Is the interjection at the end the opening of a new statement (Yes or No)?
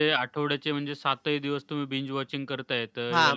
Yes